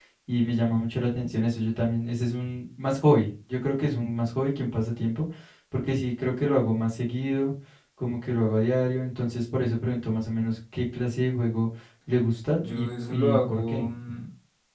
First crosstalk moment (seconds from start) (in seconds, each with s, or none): 12.6 s